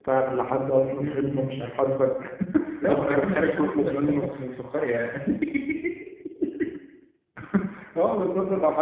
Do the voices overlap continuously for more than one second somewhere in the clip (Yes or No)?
Yes